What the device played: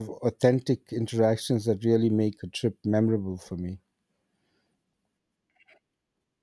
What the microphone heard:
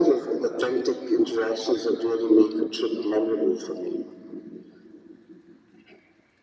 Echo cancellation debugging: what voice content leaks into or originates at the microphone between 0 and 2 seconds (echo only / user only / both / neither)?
echo only